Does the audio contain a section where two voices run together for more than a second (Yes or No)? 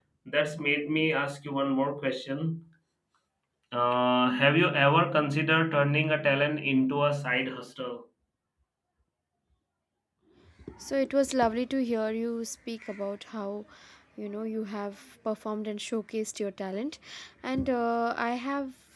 No